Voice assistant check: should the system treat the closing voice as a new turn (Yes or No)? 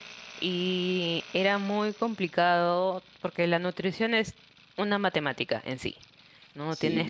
No